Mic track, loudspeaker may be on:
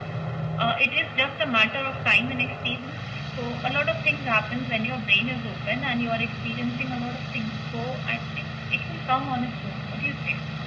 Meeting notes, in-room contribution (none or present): none